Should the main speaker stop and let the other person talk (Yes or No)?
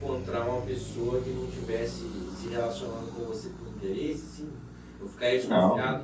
Yes